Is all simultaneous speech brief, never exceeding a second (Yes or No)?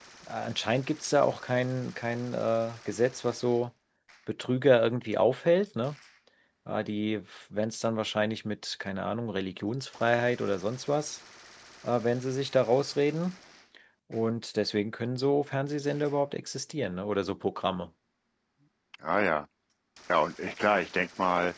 Yes